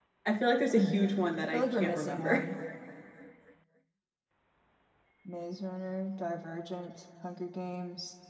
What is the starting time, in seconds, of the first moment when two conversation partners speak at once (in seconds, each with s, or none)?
0.8 s